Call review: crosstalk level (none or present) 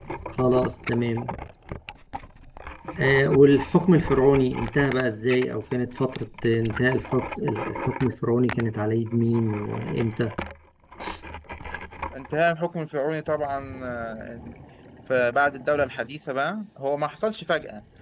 none